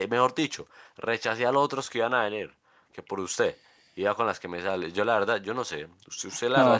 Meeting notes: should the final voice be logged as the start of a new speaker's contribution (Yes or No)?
Yes